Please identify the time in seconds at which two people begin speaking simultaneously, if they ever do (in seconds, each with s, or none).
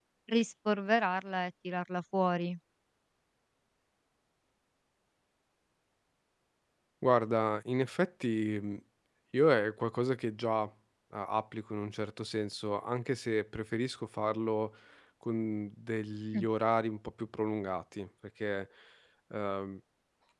none